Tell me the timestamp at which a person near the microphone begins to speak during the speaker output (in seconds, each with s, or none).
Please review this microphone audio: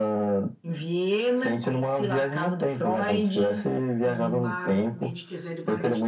4.0 s